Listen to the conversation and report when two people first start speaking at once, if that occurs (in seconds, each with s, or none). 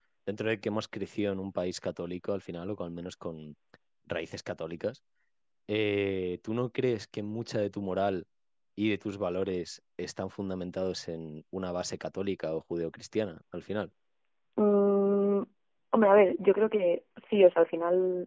none